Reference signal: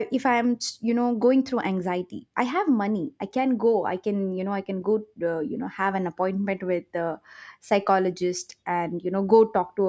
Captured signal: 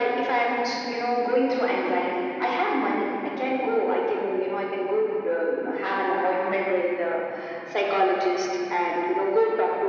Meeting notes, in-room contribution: none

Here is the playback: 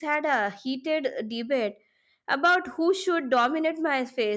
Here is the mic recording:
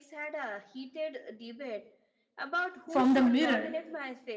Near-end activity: present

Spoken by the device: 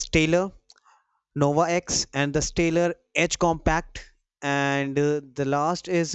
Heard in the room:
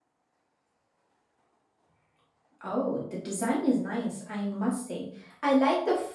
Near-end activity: present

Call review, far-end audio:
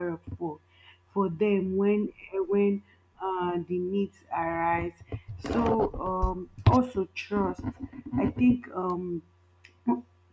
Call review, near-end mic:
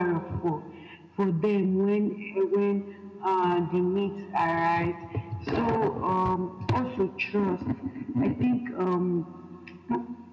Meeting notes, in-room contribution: none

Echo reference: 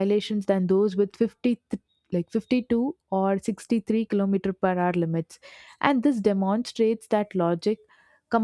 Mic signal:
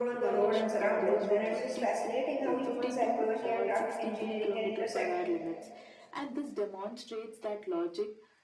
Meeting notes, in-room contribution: present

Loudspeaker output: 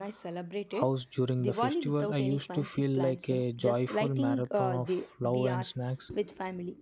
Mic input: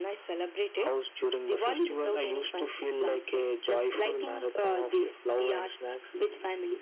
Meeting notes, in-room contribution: none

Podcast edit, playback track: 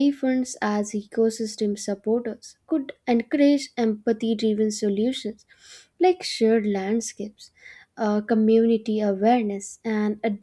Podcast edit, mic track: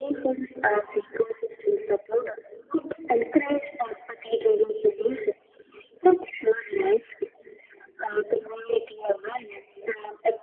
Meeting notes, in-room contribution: none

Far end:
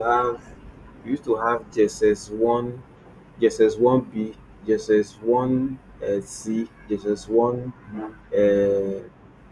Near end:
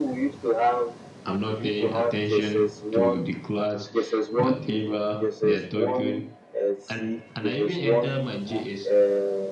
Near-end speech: present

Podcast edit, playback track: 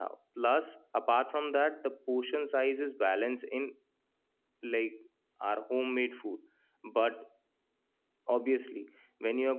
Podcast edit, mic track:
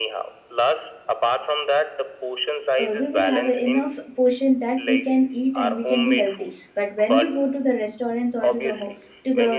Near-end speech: present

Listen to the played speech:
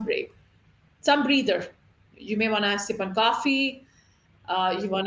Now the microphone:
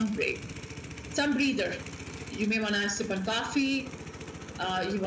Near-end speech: none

